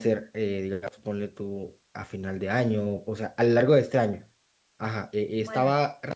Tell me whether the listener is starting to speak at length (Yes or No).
No